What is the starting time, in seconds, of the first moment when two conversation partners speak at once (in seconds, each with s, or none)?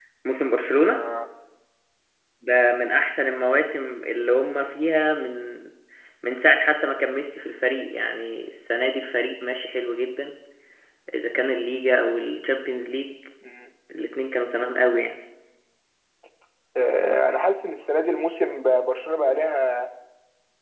none